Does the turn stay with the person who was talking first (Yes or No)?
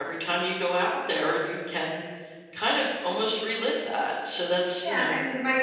No